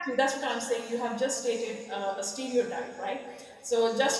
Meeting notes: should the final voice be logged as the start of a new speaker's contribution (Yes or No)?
No